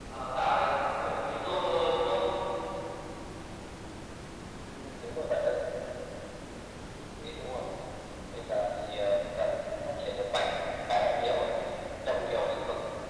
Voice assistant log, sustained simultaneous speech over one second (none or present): none